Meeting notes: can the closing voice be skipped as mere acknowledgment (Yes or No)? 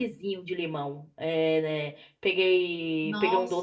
Yes